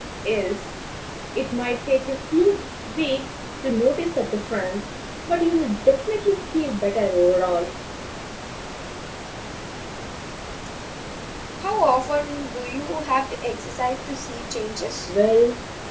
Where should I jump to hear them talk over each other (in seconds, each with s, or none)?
none